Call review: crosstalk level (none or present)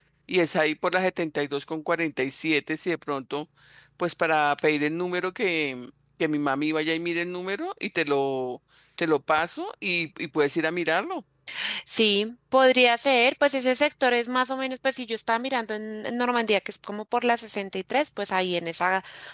none